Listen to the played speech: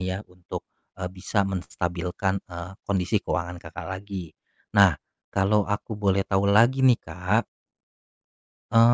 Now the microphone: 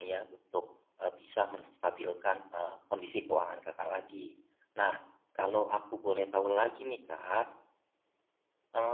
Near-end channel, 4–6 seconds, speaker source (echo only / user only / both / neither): echo only